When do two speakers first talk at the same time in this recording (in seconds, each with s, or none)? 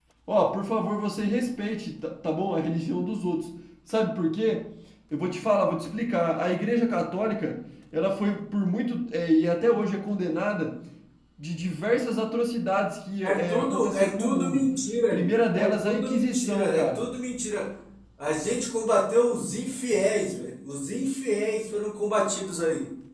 13.2 s